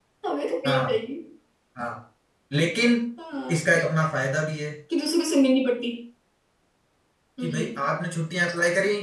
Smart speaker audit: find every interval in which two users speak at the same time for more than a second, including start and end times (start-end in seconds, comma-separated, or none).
none